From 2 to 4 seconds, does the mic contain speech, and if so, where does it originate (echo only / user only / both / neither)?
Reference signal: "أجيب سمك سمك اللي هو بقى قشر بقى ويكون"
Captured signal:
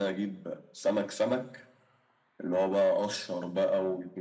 echo only